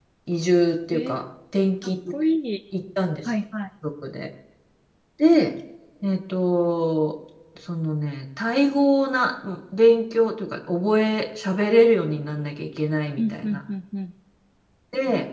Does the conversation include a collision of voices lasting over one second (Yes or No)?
No